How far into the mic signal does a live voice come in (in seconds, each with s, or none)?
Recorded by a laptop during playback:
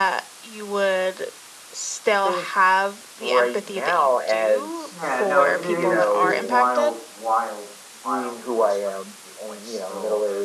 4.9 s